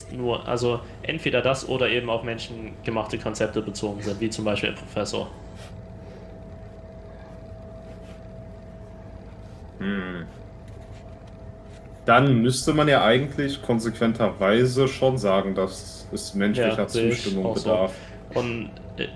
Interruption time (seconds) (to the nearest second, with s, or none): 17 s